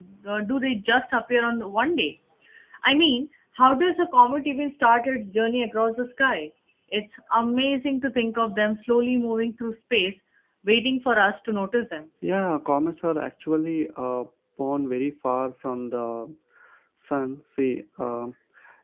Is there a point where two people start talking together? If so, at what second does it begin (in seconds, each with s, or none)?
none